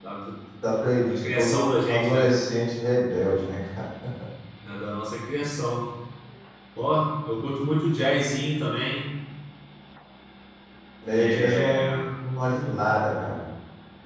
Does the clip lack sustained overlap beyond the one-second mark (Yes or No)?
No